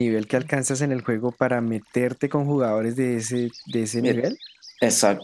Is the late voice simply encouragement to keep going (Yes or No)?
No